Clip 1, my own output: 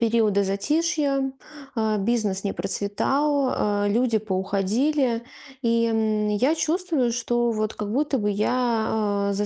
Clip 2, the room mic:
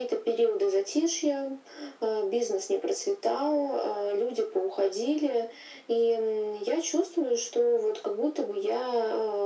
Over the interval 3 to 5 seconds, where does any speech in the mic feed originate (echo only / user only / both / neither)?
echo only